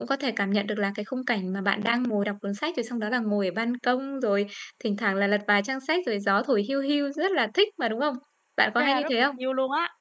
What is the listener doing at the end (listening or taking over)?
taking over